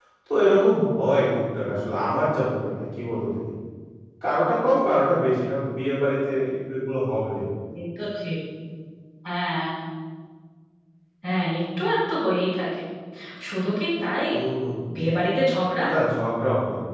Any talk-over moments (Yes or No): No